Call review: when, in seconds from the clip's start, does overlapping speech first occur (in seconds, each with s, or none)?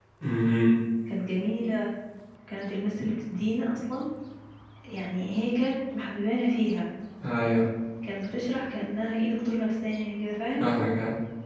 none